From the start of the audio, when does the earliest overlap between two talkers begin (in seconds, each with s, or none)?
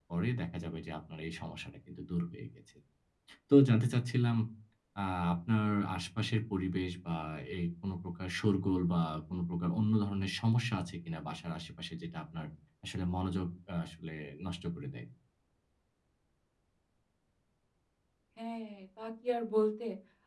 none